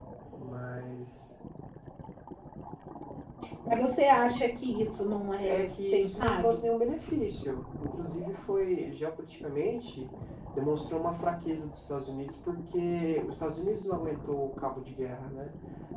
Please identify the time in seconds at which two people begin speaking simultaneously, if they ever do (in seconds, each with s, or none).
5.4 s